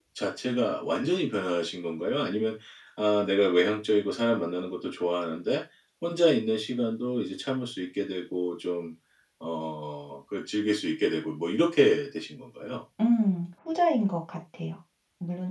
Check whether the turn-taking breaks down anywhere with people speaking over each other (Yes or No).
No